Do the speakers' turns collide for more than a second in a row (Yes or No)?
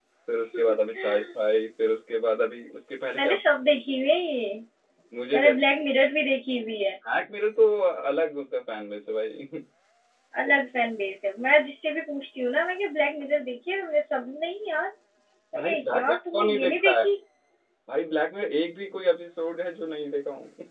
Yes